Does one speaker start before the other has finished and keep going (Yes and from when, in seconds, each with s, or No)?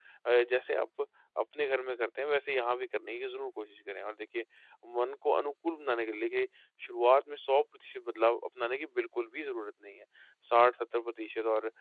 No